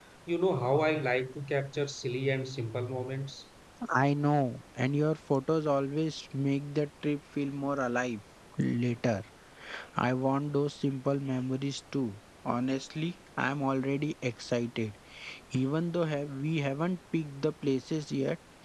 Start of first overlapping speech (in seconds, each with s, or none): none